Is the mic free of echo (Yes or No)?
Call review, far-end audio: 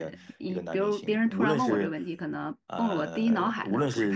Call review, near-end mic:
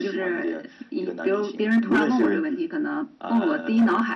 No